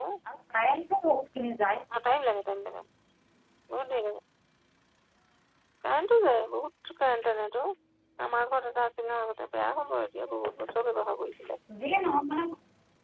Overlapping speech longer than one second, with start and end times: none

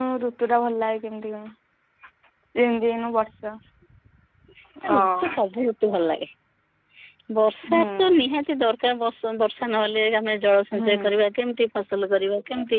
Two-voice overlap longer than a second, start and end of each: none

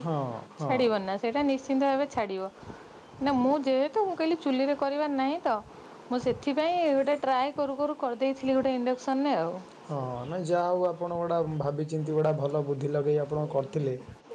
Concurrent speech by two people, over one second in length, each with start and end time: none

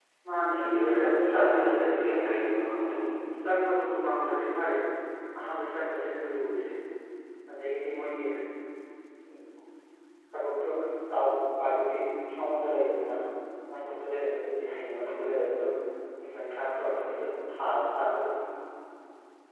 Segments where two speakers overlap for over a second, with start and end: 0.6-1.9

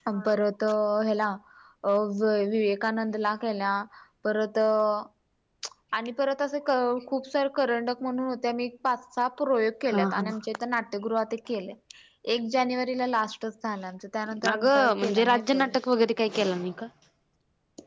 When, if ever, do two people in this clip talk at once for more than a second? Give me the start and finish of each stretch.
14.5-15.8

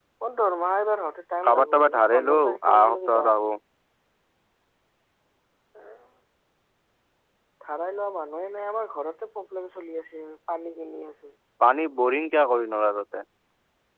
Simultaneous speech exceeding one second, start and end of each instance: 1.4-3.3

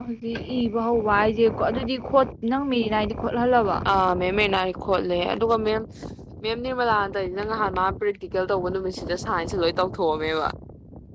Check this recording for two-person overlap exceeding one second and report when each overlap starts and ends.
none

